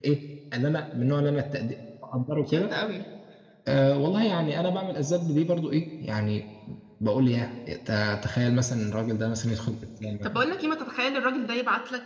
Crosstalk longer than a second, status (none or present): none